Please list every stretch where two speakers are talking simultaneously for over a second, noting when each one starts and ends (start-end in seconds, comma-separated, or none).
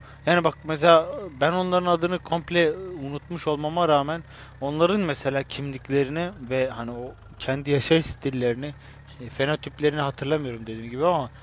none